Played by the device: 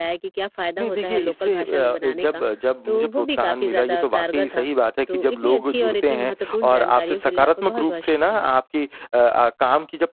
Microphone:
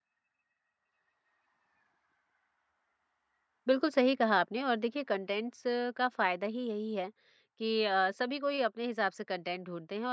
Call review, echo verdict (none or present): none